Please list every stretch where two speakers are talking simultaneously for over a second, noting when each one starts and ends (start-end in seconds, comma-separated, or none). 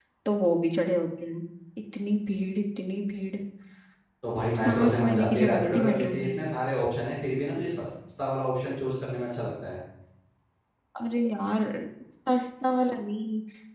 4.5-6.3